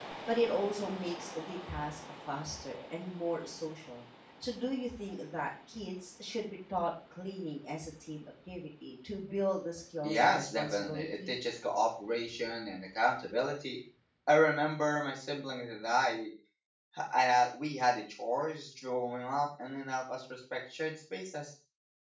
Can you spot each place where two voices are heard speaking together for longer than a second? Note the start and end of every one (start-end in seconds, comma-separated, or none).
10.0-11.3